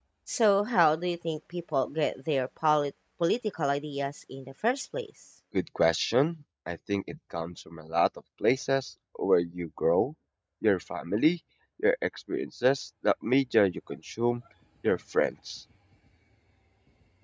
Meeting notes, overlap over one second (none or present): none